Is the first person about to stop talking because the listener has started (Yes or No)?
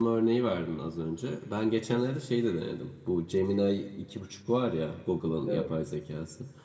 No